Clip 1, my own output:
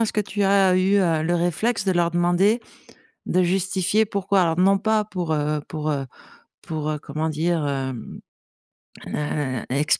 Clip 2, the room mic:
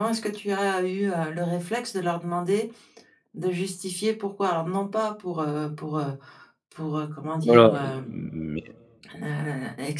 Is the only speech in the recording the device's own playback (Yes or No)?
No